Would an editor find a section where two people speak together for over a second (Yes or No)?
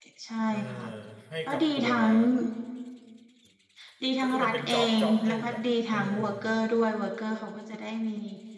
Yes